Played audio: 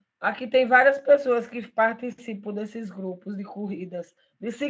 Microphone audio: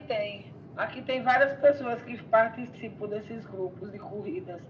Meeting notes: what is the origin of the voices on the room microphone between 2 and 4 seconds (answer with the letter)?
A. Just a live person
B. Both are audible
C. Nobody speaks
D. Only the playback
D